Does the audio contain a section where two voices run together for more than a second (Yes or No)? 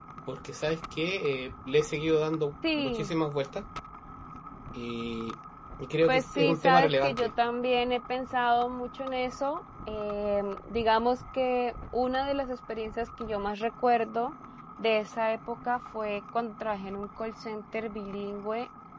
Yes